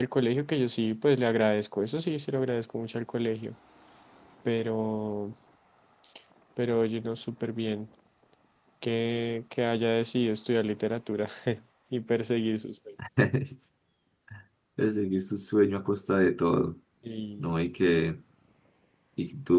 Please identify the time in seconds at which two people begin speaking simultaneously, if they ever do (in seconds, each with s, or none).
none